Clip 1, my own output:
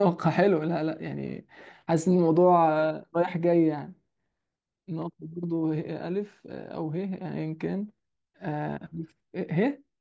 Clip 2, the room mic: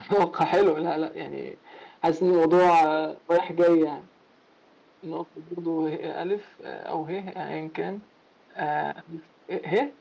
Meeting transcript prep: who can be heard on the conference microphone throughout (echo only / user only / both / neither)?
echo only